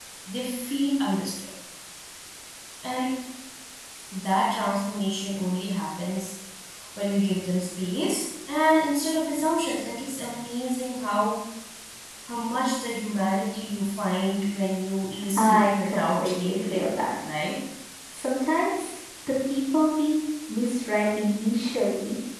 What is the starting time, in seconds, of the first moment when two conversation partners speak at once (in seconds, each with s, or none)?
15.4 s